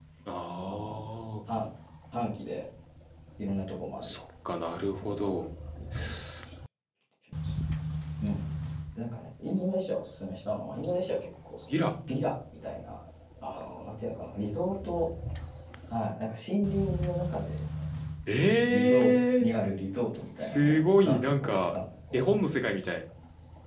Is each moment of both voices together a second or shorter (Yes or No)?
No